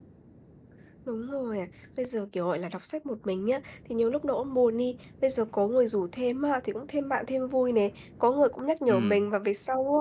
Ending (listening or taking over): listening